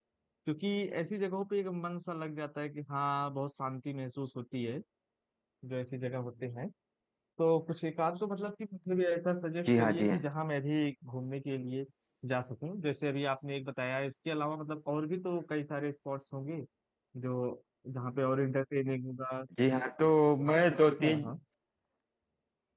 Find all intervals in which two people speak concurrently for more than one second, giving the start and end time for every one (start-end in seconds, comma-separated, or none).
none